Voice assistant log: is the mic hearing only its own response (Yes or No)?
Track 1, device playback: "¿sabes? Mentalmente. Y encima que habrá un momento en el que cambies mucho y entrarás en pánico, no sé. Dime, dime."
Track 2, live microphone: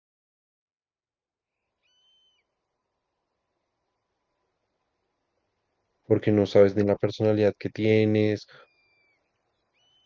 No